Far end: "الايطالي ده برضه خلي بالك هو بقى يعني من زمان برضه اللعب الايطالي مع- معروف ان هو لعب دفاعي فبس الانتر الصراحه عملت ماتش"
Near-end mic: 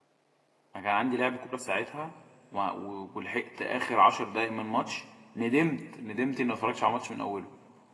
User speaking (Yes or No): Yes